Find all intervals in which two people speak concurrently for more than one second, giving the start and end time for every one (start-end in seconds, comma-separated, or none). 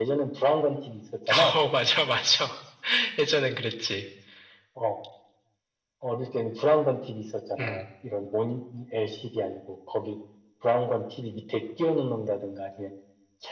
none